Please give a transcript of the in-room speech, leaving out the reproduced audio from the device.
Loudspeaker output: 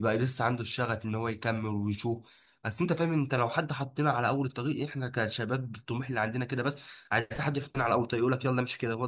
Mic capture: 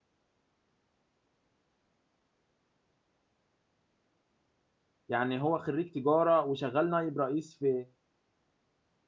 يعني هو خريج تجارة وشغال نائب رئيس في

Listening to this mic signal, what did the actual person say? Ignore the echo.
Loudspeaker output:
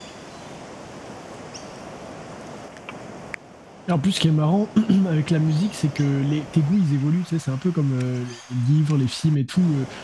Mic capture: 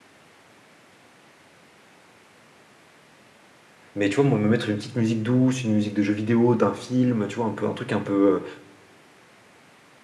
Mais tu vois, moi, me mettre une petite musique douce, une musique de jeu vidéo, d'un film, tu vois, un peu, un truc un peu, euh,

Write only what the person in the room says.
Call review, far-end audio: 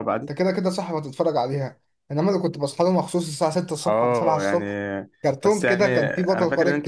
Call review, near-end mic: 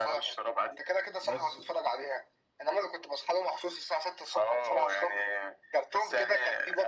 بس

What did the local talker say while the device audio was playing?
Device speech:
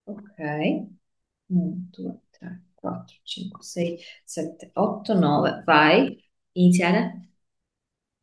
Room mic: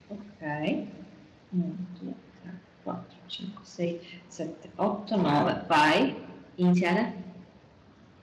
Com'è?

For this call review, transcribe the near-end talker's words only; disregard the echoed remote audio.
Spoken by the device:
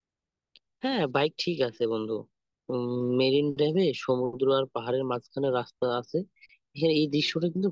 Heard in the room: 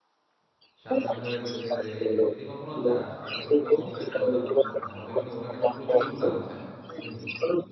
সাবধান করে দিছে যে যদি কখনো যাস তাহলে কিন্তু অবশ্যই দরদাম করতে হবে না হলে কিন্তু ওরা নাকি প্রচুর দাম চায় বুঝলি

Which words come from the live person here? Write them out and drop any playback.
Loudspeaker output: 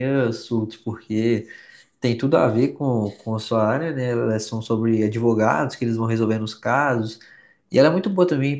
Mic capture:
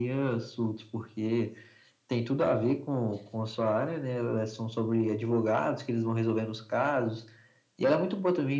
none

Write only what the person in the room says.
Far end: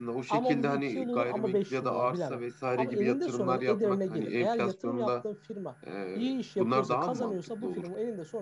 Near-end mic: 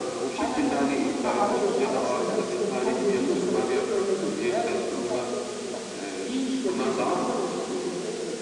Ha ara, za- ara sıra geçilebilir mi? Geçilebilir

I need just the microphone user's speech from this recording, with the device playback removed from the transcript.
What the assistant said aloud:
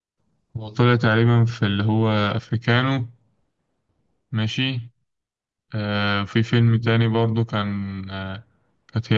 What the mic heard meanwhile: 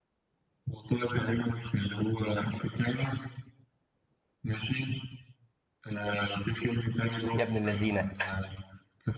يا ابن اللذينة

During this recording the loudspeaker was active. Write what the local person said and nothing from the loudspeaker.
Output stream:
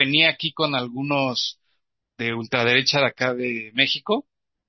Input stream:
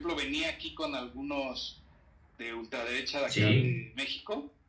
sí,

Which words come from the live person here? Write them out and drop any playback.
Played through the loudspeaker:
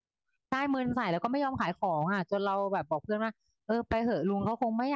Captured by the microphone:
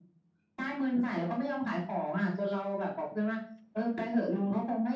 none

